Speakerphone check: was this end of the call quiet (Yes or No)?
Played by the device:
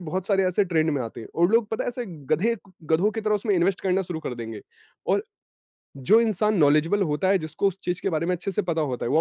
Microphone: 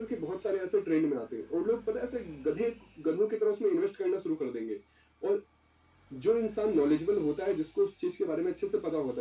Yes